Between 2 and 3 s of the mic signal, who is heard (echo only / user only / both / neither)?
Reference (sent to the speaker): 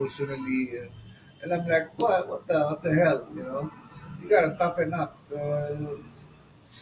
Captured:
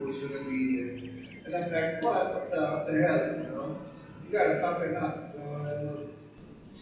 echo only